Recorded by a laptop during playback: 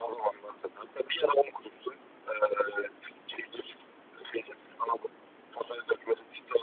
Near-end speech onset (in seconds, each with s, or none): none